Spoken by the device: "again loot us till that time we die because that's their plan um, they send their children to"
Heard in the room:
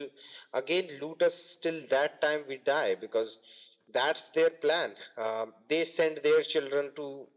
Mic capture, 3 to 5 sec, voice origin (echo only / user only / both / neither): echo only